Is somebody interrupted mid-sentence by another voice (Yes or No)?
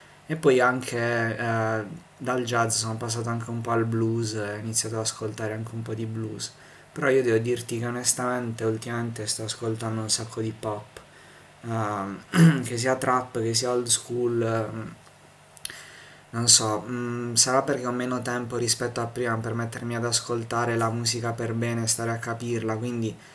No